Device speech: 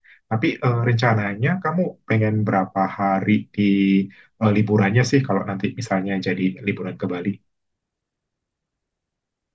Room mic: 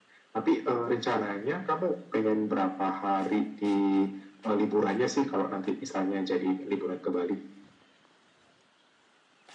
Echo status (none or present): present